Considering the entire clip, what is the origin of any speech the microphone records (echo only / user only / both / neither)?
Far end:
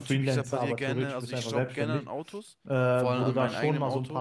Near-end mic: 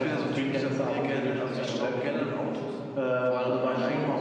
echo only